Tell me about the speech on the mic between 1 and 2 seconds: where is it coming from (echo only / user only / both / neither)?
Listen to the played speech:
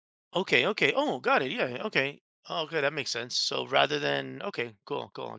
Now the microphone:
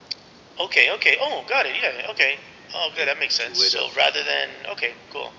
echo only